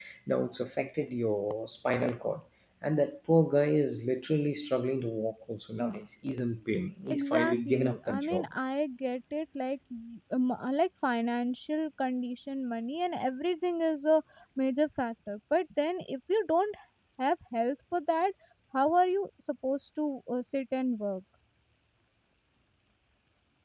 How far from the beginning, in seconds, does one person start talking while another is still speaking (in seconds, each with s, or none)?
7.1 s